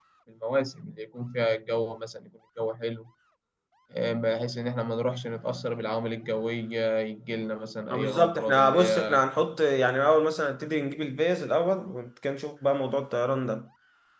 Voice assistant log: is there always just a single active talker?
No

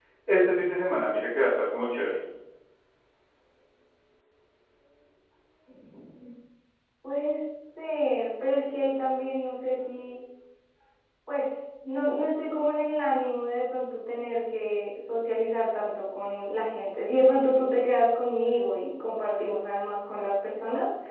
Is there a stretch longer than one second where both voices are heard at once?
No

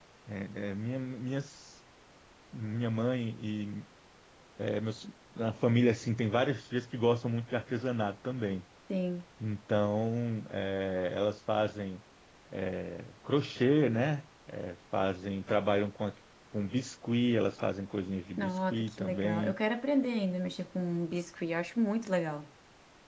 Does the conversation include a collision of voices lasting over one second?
Yes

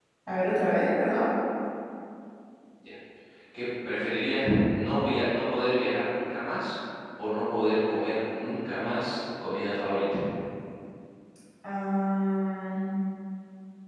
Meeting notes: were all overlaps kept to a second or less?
Yes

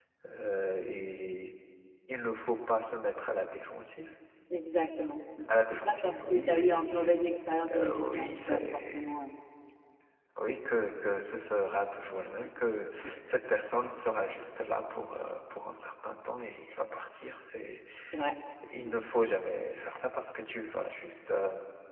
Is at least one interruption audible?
Yes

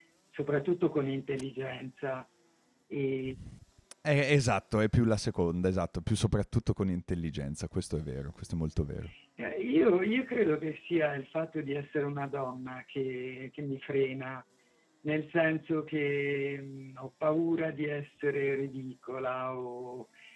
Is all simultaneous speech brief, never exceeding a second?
Yes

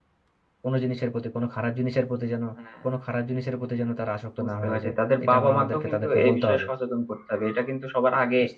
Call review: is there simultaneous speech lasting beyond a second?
Yes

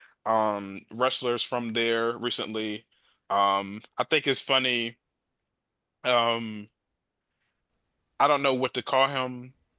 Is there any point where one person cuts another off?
No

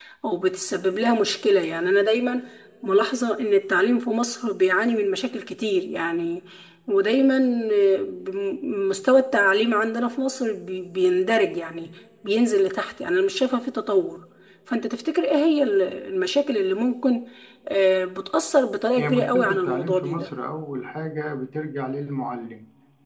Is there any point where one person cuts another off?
Yes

